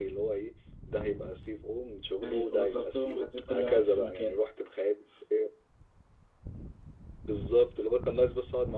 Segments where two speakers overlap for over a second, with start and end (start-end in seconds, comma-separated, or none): 2.2-4.4